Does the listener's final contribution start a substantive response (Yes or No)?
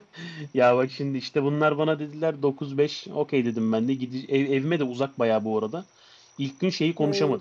No